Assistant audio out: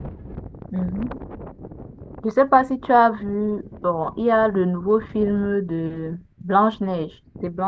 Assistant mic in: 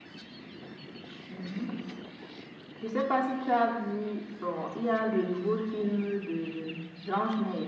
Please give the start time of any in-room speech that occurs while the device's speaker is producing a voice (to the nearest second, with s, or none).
none